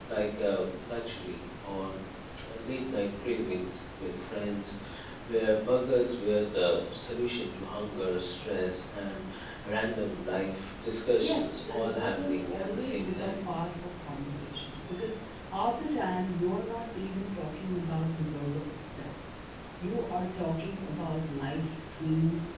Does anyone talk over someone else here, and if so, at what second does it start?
11.2 s

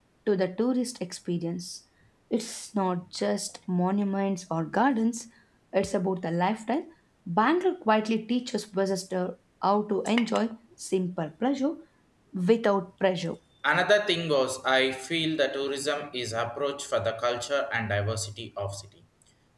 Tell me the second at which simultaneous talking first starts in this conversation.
none

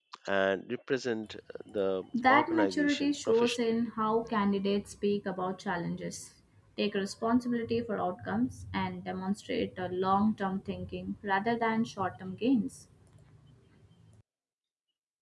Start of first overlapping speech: 2.1 s

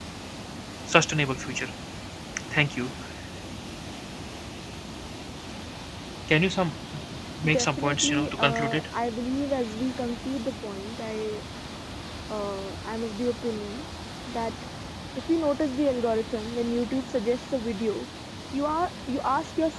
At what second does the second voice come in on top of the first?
7.5 s

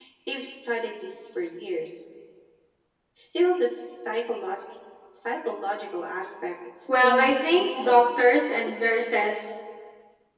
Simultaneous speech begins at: 6.9 s

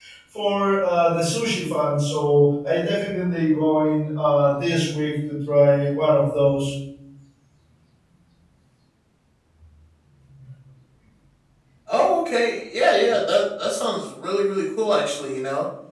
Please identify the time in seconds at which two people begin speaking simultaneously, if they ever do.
none

